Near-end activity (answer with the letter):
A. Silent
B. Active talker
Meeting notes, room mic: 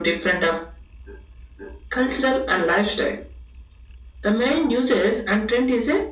A